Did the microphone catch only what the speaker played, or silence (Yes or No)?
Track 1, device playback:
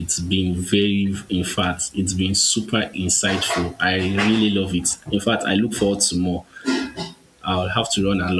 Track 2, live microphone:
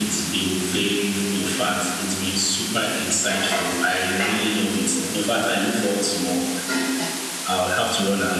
Yes